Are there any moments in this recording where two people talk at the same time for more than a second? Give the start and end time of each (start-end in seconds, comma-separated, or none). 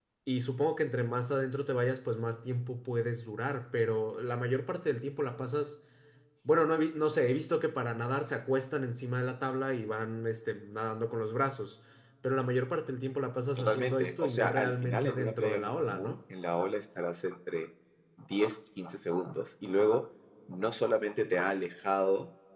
13.6-16.1